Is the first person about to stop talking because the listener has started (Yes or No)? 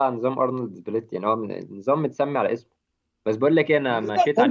No